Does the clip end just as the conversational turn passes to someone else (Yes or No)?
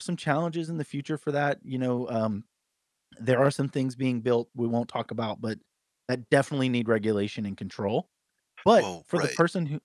No